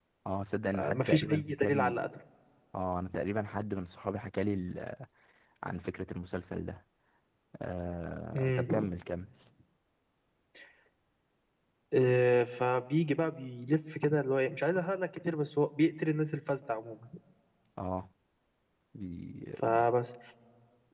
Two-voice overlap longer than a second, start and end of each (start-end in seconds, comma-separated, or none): 0.8-2.0